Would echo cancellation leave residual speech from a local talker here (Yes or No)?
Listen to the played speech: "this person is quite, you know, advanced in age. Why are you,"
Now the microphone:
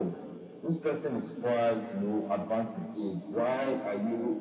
No